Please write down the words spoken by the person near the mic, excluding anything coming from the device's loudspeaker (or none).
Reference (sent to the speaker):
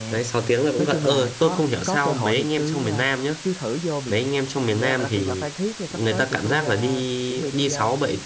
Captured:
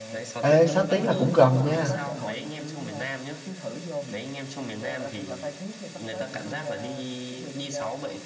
Ê, 6 tiếng là cũng gần nha.